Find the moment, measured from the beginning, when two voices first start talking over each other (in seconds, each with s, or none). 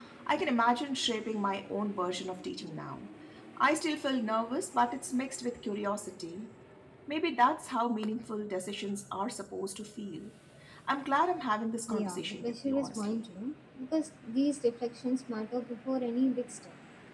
11.9 s